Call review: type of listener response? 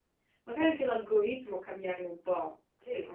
taking over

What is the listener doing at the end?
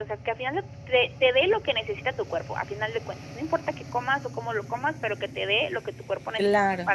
listening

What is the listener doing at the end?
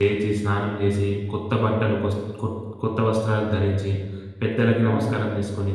listening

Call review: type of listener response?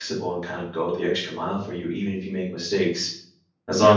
listening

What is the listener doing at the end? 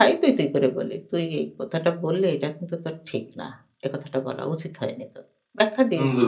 taking over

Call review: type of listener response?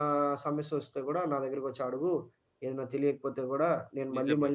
listening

